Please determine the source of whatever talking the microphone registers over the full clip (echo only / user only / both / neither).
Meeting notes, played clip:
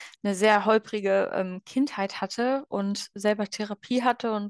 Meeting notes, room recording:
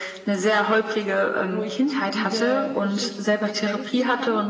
both